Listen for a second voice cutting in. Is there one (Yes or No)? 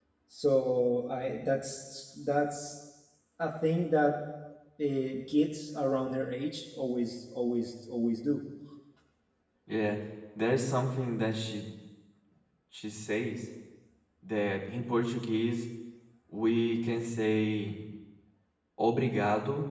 No